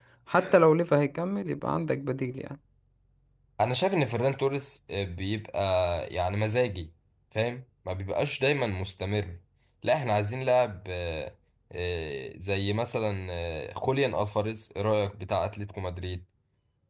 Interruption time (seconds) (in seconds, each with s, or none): none